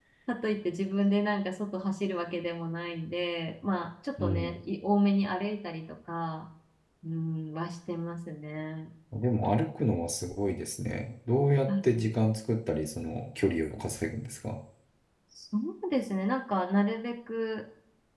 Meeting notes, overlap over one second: none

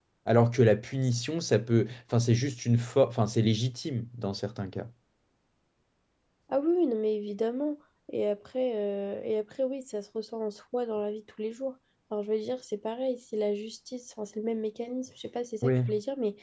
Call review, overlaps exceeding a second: none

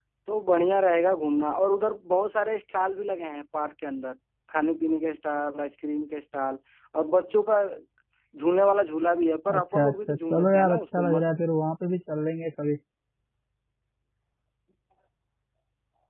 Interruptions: present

